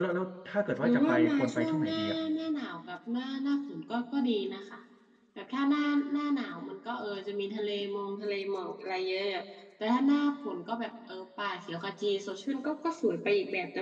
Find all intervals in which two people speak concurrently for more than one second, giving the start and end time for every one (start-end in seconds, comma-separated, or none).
0.8-2.2